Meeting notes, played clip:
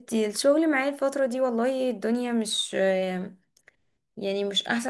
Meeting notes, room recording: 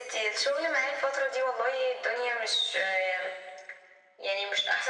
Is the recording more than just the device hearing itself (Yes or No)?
No